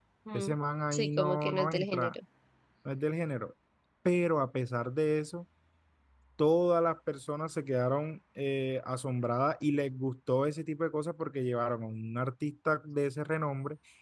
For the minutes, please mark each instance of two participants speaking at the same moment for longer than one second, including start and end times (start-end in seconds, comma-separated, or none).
0.9-2.2